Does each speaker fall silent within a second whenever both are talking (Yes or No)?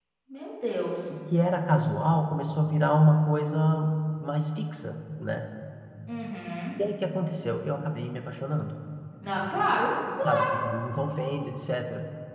Yes